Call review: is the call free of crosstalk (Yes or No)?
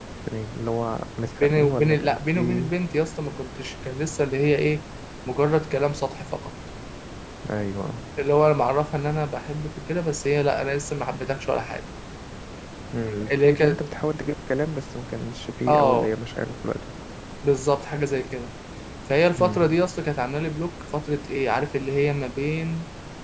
No